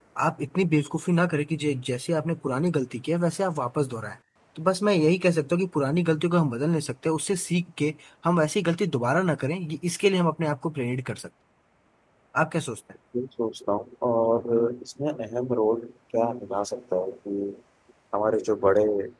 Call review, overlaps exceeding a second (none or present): none